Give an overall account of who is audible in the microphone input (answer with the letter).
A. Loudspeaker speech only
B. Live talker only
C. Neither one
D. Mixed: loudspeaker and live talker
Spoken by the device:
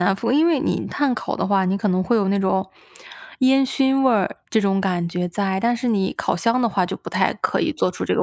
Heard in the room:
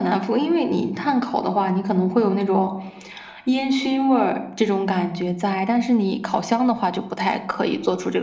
A